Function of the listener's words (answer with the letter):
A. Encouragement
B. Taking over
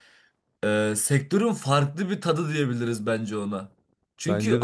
A